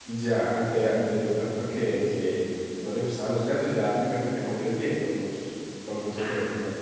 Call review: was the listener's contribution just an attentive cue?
No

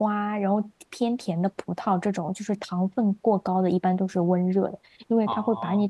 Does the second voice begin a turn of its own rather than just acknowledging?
No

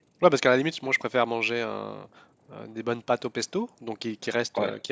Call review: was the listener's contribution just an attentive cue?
Yes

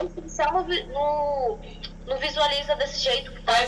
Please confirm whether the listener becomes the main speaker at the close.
Yes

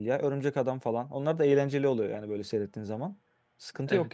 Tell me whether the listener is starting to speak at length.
Yes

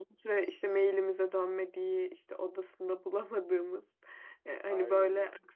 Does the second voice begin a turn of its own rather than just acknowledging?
No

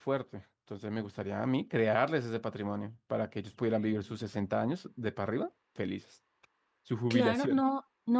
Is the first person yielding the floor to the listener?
Yes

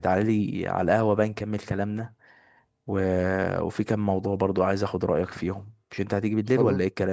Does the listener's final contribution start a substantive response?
Yes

